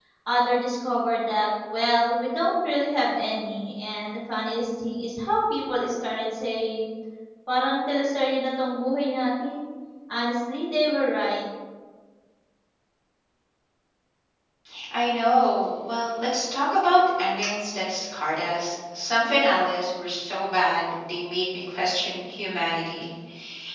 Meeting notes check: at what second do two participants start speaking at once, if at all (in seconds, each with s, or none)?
none